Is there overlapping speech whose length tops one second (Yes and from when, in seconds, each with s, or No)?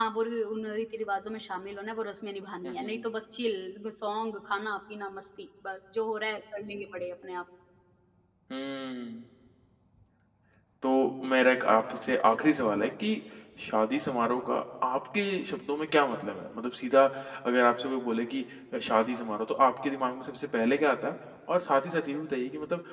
No